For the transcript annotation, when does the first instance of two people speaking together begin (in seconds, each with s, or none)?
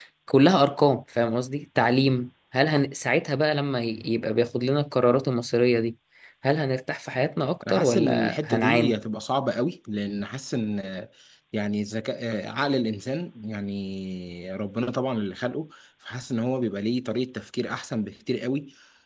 7.6 s